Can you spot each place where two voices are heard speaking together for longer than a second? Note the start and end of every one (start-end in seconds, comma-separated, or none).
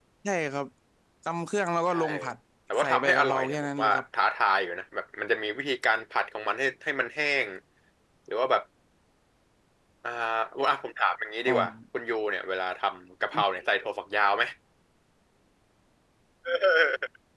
2.8-4.0